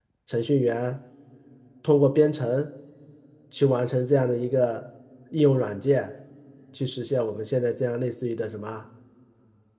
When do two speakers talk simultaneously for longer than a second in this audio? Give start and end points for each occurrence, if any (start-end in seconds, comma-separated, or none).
none